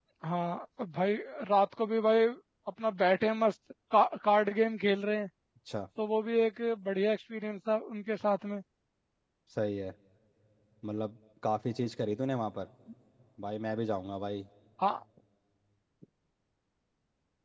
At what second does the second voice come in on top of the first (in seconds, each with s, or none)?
none